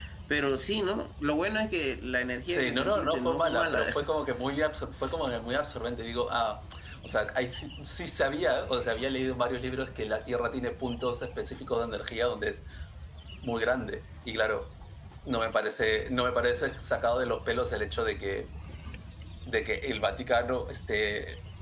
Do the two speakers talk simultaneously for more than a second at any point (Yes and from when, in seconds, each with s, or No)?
Yes, from 2.5 s